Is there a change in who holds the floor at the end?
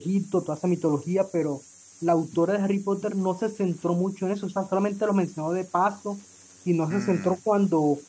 No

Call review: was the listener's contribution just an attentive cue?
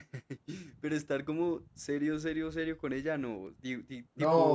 No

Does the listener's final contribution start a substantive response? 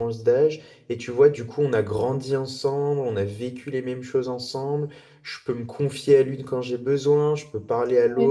No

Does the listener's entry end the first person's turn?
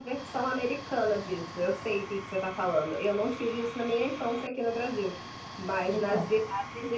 No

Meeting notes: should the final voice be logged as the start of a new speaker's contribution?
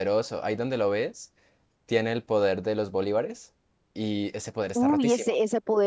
Yes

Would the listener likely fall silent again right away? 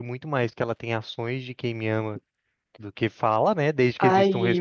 No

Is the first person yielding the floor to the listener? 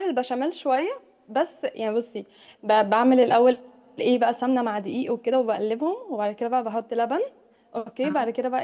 No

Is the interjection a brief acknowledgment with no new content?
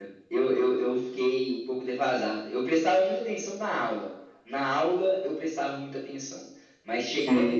Yes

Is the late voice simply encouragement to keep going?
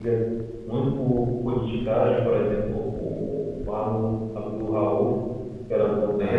Yes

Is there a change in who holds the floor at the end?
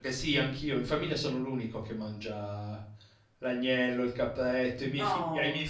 No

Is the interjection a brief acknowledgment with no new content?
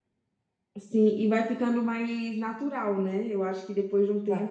Yes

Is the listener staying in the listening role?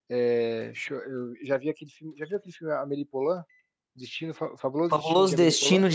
No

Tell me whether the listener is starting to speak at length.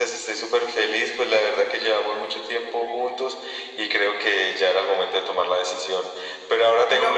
No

